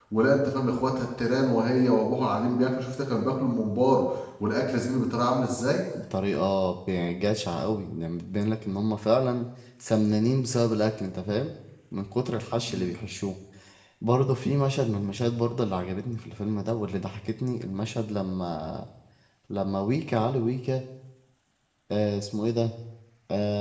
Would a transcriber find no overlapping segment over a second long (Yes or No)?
Yes